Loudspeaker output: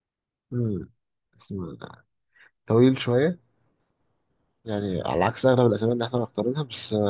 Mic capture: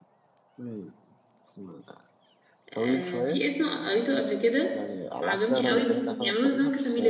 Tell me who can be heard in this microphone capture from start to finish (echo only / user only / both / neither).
both